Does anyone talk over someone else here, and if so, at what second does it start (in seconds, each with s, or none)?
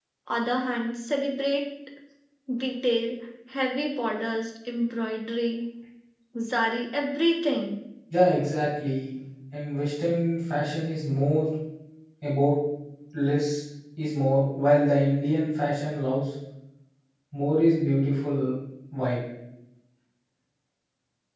none